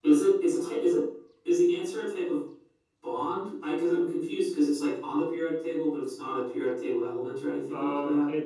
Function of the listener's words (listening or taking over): taking over